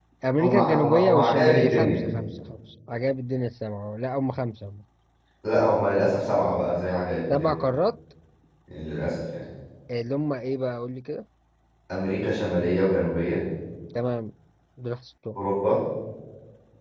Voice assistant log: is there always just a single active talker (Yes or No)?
No